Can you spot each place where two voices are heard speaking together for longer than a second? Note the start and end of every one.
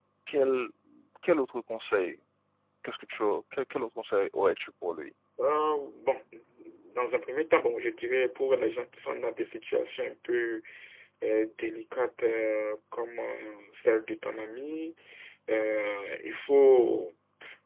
none

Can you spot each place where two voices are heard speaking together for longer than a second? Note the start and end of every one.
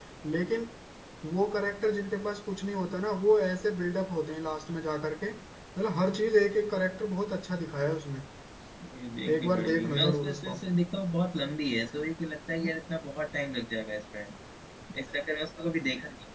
9.3-10.6

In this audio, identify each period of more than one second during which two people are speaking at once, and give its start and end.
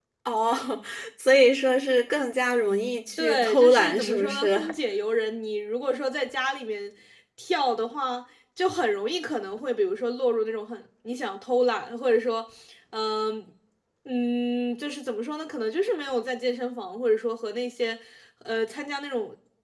3.2-4.6

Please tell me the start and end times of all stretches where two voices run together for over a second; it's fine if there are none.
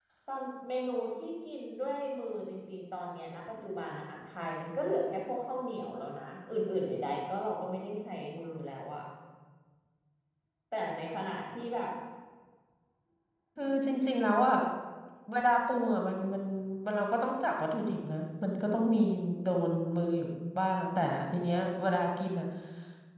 none

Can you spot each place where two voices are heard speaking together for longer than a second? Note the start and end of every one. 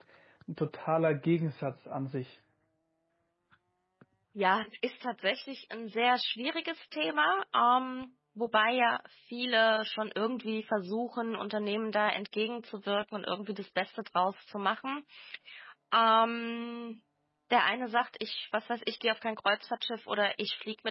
none

